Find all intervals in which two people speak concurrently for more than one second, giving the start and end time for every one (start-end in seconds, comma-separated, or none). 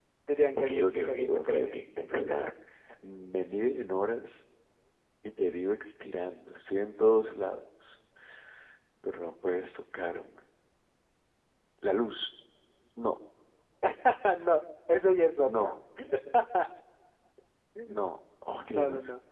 0.6-1.8